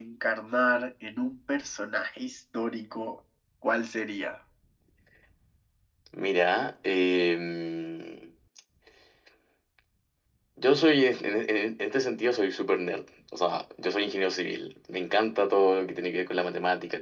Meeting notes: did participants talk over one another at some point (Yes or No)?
No